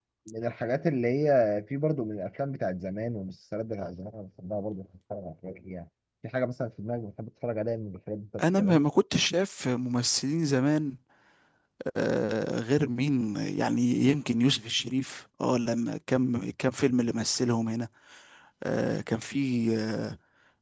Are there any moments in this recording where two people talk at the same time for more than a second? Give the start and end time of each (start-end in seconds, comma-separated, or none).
none